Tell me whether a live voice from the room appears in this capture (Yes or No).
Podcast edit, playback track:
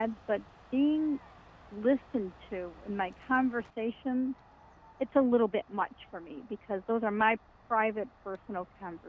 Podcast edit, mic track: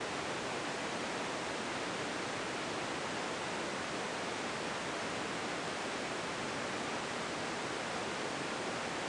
No